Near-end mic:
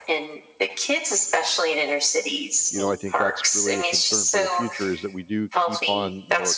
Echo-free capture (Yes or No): No